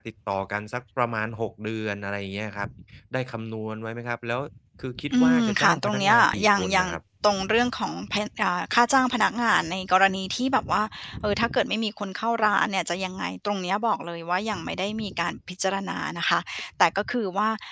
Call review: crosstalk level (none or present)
present